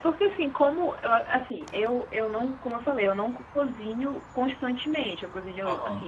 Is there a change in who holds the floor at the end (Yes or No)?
No